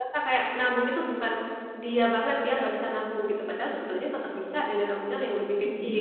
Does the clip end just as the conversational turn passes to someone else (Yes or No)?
Yes